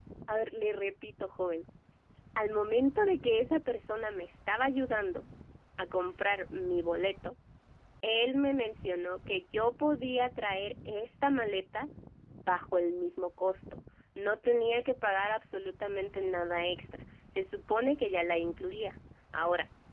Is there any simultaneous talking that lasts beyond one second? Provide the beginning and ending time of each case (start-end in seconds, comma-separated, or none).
none